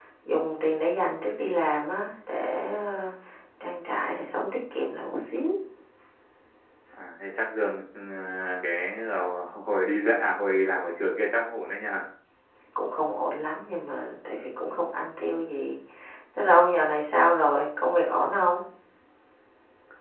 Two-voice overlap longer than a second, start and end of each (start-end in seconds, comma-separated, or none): none